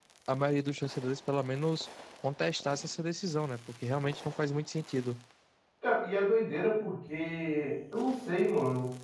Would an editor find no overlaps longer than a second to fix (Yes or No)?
Yes